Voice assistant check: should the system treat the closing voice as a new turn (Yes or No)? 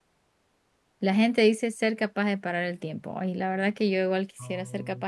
No